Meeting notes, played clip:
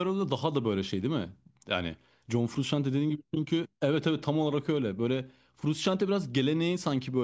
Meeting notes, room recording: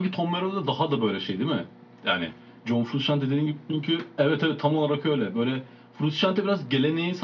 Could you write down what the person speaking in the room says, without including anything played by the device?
none

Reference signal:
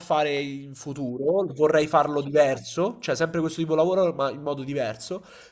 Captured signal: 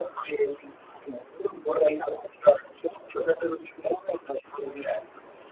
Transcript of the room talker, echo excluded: none

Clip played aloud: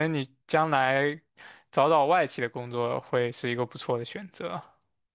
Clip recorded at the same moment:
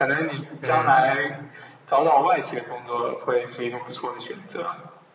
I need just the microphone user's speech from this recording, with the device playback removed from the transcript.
嗯。

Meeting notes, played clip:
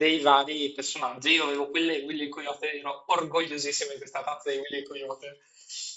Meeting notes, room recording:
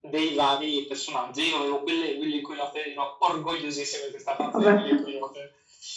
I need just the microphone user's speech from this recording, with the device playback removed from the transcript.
che vabbè,

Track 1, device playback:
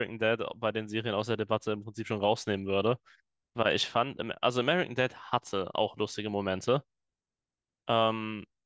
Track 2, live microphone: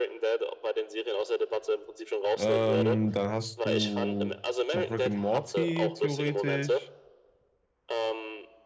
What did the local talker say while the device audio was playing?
Ähm, dann hast du noch Rick and Morty theoretisch.

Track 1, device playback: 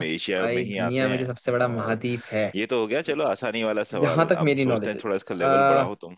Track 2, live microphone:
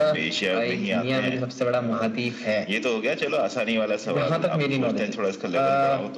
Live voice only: none

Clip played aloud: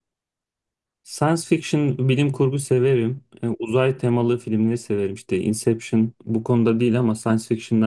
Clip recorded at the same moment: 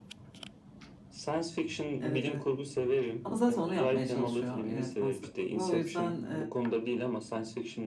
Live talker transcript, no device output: Evet evet. Ama zaten onu yapmaya çalışıyor yönetmen sıklıkla. O yüzden eee,

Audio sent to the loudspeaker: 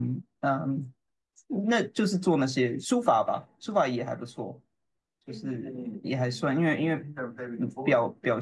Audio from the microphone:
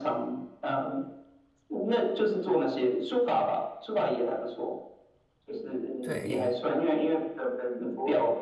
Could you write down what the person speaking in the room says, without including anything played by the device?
对，

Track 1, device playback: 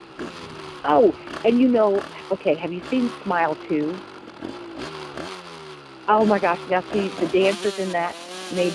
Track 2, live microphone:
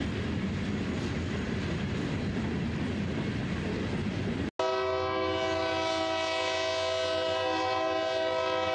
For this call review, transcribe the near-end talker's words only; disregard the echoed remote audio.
none

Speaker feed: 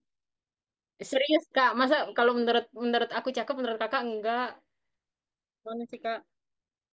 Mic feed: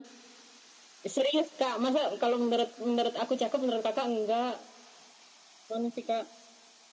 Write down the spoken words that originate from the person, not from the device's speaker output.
none

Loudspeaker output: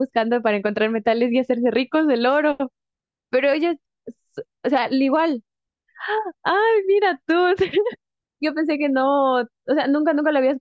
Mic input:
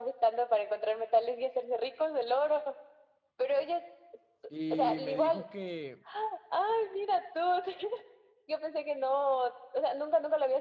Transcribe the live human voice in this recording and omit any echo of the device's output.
Y me dijo que,

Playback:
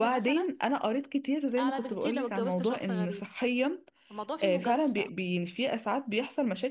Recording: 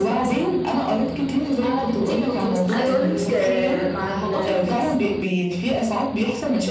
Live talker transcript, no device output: عايزه اقولك آه، مع ال-

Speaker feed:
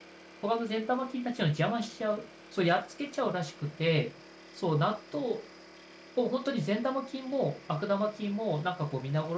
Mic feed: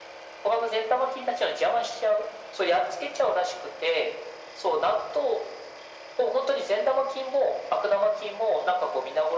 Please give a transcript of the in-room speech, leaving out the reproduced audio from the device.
none

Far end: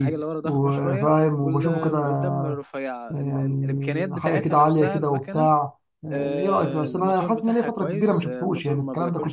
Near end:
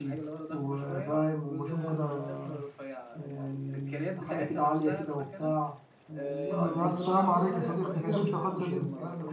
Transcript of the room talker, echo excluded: أمم، ألف سلام عليك يا صديقي ده كانت امتى الحادثة دي

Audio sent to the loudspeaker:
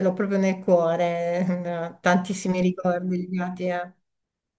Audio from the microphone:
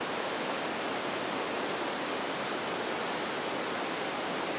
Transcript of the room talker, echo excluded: none

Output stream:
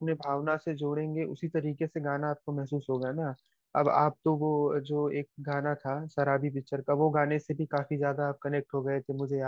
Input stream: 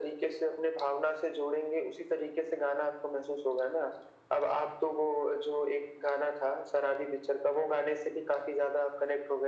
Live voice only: none

